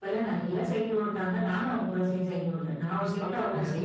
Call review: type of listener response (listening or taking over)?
taking over